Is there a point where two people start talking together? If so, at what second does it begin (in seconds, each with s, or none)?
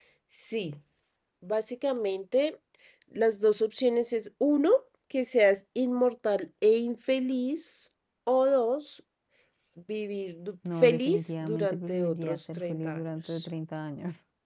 10.6 s